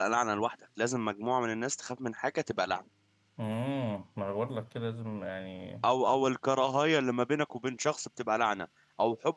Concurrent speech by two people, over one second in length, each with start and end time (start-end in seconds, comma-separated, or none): none